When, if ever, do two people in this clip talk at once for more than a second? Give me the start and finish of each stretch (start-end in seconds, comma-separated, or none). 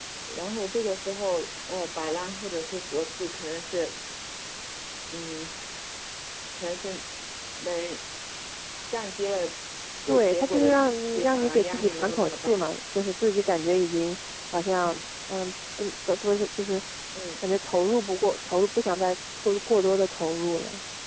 10.1-12.6